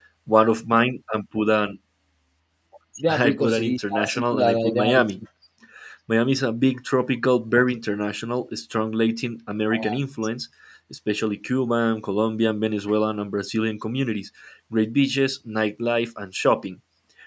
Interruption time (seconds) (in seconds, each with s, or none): 3.1 s